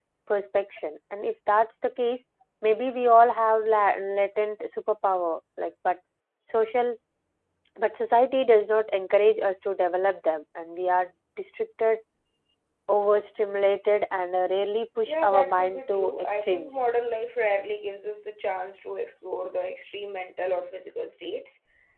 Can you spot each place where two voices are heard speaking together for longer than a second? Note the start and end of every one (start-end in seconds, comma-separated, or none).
15.0-16.9